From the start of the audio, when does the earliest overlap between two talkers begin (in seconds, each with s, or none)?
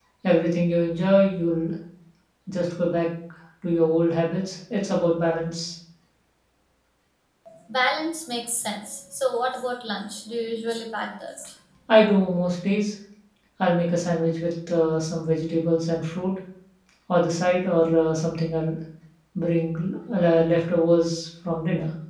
none